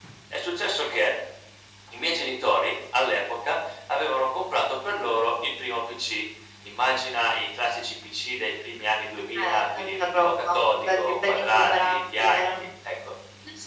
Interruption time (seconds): 9.4 s

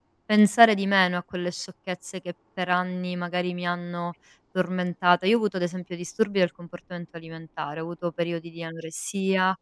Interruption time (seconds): none

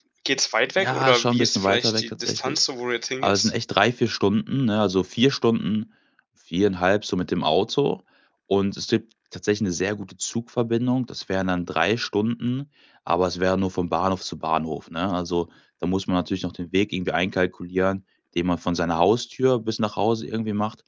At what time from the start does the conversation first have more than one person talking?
0.8 s

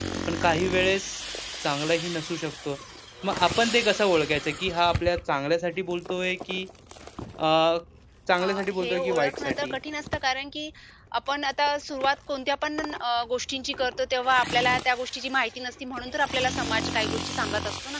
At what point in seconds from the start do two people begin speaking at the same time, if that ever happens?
8.4 s

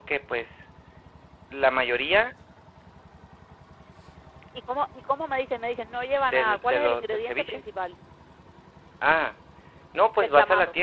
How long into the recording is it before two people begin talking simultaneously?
6.3 s

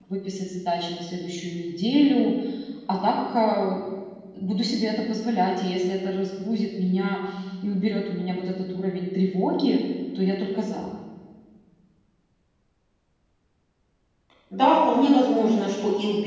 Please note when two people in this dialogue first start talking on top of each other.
none

